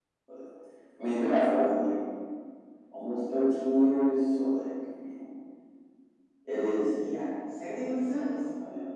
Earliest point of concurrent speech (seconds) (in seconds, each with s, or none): none